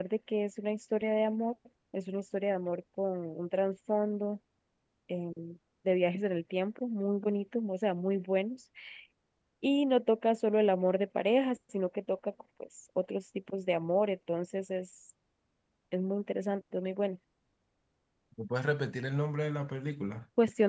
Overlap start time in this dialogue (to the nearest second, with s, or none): none